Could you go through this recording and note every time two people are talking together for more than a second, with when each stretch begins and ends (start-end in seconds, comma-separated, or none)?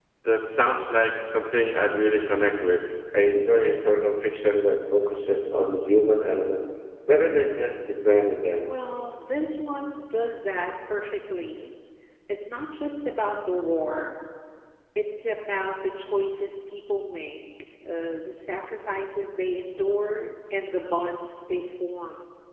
none